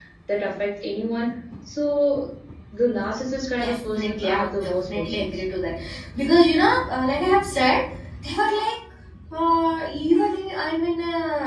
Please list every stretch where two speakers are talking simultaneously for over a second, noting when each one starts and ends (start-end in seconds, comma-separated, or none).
3.6-5.4